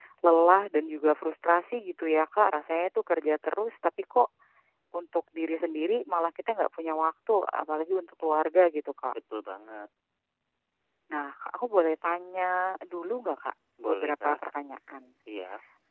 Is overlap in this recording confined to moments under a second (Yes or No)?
Yes